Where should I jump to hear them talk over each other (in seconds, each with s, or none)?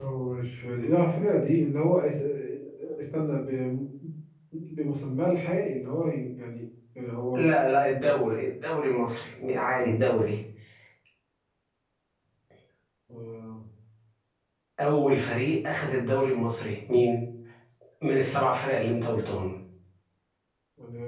none